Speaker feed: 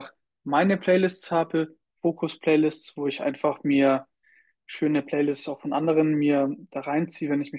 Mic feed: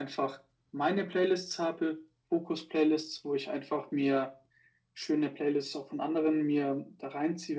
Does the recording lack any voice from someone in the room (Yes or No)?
Yes